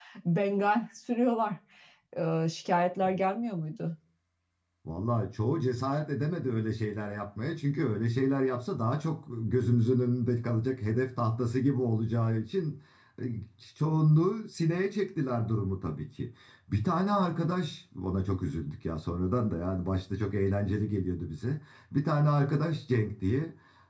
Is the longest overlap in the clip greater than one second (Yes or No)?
No